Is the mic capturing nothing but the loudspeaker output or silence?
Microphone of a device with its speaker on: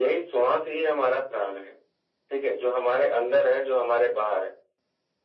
Yes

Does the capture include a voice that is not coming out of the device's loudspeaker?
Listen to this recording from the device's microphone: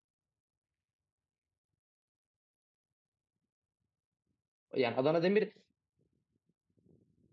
Yes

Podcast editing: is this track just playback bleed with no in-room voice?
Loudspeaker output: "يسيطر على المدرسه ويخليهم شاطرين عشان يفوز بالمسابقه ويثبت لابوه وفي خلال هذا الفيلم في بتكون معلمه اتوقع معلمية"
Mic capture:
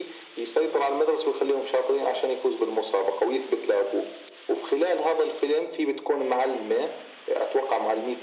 Yes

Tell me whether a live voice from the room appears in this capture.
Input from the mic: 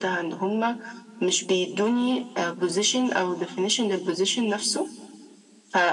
No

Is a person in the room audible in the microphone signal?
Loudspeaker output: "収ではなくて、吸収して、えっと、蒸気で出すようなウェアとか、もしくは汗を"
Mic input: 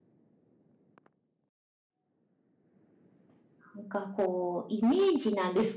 Yes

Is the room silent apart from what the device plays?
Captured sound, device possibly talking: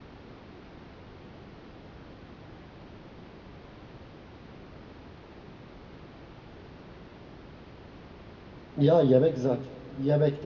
No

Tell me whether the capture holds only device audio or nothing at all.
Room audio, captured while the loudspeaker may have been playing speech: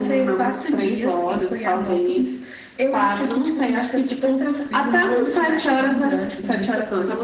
Yes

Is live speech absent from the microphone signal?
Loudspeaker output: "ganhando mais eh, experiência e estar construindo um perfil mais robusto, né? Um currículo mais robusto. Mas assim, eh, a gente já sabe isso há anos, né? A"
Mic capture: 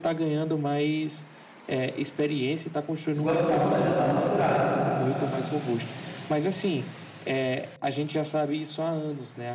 No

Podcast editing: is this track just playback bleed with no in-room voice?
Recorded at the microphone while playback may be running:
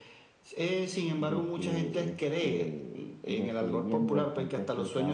No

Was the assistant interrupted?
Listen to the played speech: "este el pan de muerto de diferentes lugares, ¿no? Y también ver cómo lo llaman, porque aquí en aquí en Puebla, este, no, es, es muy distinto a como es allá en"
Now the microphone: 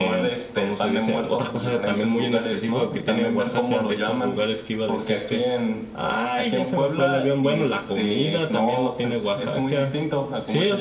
Yes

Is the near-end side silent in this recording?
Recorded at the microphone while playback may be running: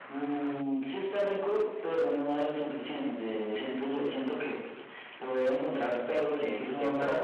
No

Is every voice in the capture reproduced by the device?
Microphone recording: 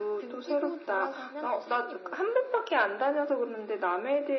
Yes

